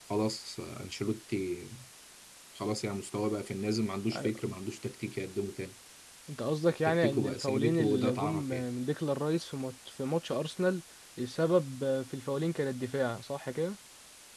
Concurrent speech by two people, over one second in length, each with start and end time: 6.8-8.7

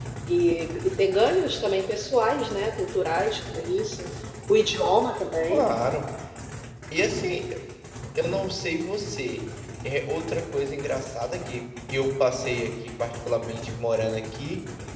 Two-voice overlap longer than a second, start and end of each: none

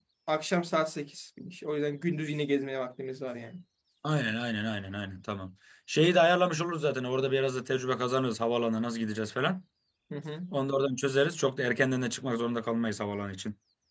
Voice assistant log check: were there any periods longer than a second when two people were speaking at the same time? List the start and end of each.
none

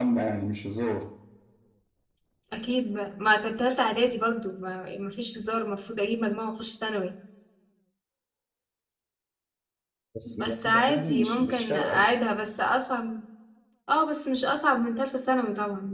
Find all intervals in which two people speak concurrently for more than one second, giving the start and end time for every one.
10.2-12.1

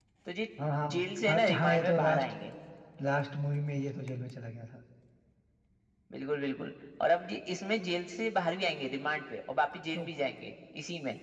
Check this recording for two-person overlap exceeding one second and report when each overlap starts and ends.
0.9-2.2

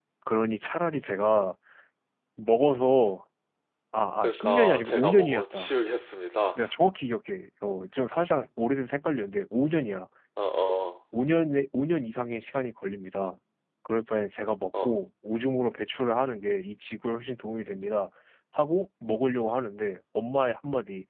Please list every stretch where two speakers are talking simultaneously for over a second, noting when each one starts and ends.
4.2-5.7

